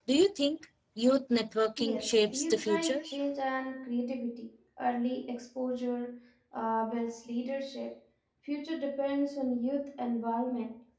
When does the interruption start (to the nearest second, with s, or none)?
2 s